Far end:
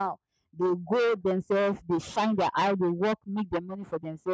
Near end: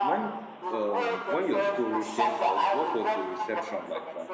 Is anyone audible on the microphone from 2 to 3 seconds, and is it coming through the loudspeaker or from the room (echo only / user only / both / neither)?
both